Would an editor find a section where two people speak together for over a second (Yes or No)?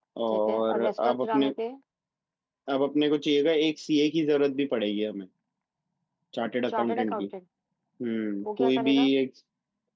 Yes